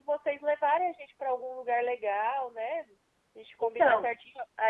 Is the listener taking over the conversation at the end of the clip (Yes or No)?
No